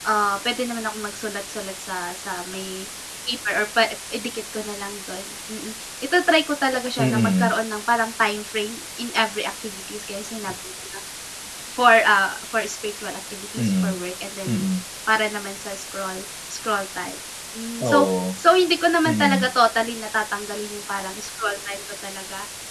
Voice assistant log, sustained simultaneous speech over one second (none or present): none